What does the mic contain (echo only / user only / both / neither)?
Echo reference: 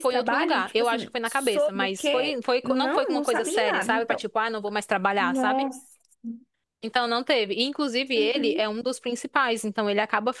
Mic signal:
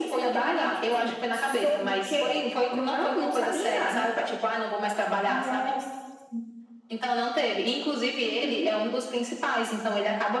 echo only